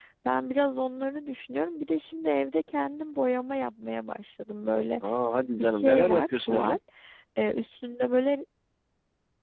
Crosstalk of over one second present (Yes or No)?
Yes